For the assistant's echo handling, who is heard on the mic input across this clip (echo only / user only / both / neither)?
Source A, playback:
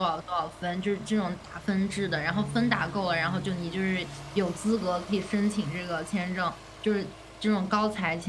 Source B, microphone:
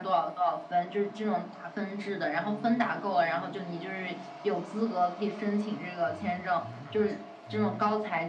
both